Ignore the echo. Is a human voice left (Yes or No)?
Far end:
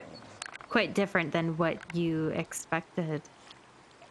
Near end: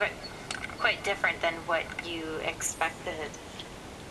No